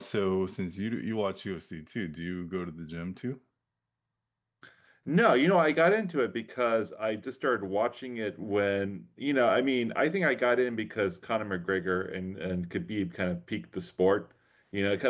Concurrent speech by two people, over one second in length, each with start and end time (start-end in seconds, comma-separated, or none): none